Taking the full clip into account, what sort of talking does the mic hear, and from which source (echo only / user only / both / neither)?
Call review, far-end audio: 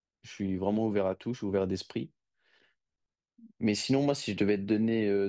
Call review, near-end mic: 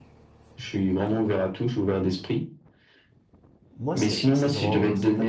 both